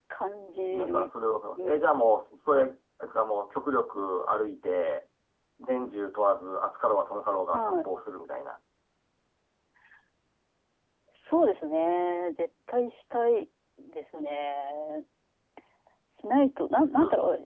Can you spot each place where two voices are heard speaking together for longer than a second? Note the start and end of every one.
none

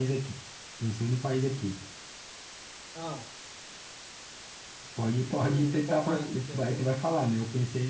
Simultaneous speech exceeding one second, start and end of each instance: 5.5-6.8

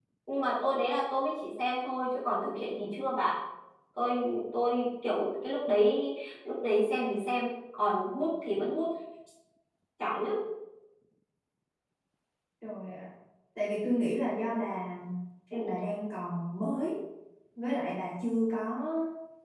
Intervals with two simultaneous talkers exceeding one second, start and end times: none

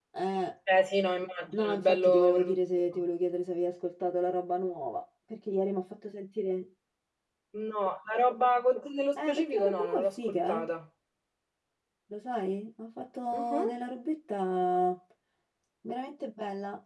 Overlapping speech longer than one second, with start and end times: 1.5-3.0, 9.2-10.7

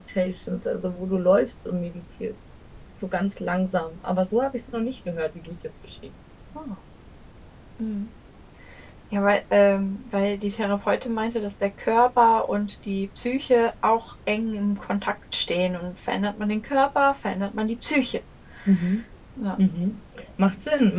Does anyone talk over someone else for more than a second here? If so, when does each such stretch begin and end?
none

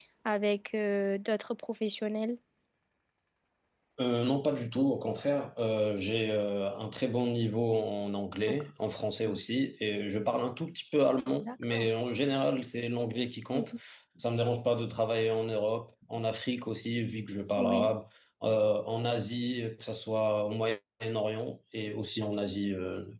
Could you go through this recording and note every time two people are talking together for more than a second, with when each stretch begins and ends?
none

